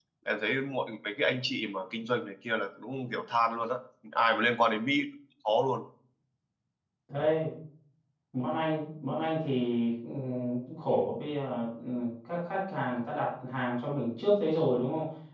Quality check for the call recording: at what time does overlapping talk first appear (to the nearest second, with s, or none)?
none